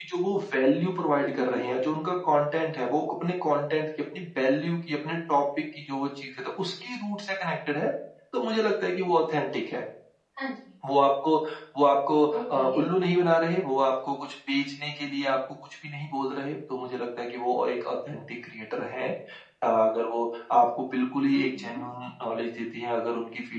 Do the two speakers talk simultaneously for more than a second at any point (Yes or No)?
No